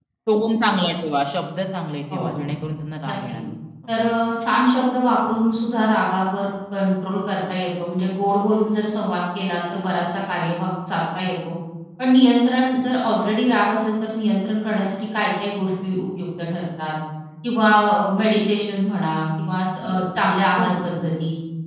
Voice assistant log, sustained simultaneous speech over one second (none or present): none